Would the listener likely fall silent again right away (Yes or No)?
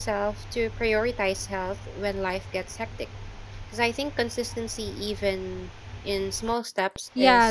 No